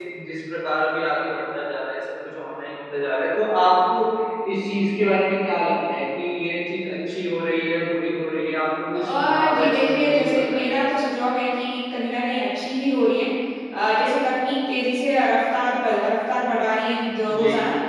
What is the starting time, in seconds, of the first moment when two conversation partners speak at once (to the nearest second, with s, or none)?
9 s